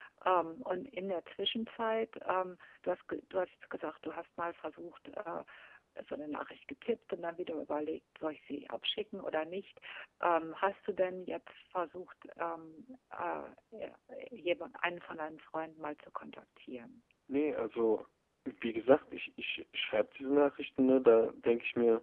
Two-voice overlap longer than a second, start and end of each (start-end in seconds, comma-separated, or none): none